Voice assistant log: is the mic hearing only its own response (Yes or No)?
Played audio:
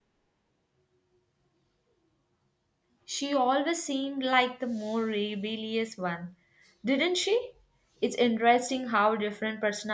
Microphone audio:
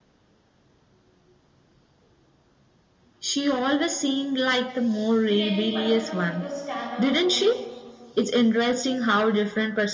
No